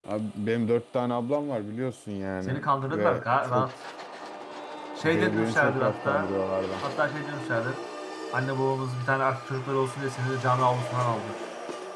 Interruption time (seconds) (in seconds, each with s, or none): 2.4 s